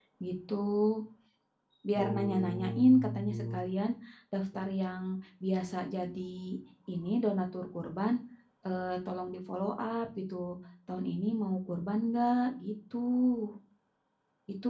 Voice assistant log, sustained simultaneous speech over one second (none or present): present